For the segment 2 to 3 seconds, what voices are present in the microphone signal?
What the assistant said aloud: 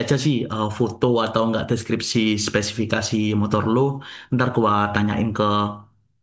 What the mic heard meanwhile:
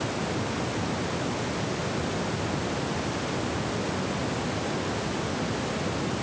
neither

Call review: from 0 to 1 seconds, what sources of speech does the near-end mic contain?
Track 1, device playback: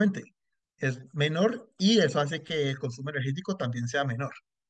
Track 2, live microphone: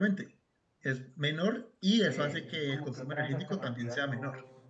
echo only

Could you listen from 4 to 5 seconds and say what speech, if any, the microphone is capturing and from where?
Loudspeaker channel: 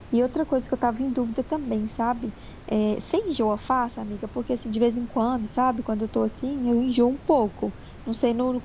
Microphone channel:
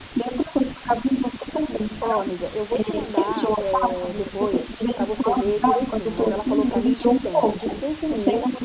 both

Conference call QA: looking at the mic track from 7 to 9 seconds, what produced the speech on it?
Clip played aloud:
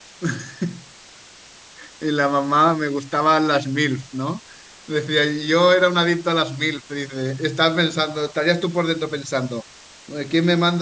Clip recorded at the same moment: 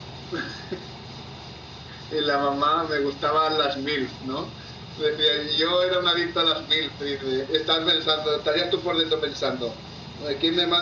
echo only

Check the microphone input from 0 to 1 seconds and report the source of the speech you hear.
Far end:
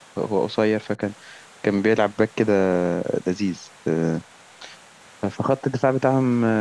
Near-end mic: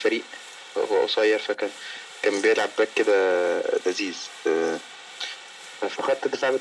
echo only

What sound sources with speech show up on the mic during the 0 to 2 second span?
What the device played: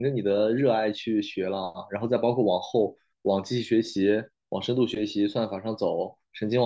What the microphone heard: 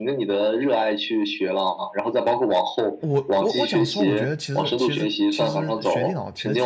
echo only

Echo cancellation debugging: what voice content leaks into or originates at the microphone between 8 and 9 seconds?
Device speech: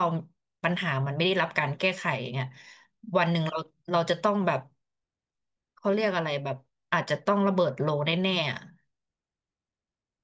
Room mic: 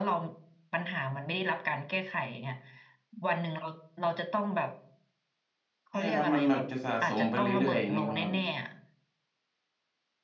both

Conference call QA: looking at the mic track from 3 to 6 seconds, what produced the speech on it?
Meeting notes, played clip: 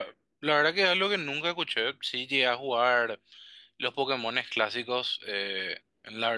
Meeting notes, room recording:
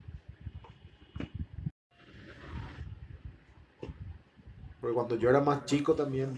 user only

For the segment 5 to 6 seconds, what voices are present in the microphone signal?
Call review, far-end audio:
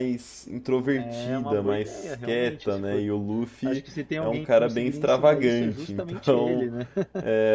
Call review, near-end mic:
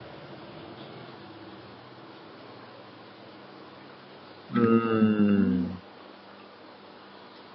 user only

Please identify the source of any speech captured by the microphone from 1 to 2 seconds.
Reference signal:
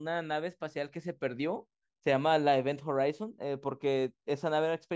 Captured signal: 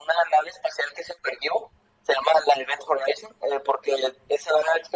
echo only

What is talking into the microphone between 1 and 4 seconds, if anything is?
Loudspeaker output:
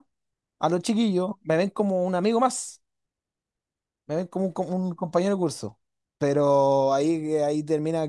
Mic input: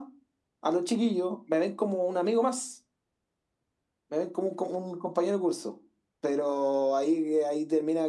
echo only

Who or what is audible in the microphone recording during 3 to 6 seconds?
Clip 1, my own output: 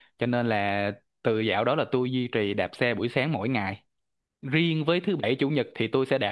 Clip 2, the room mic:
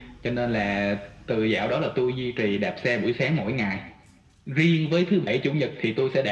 echo only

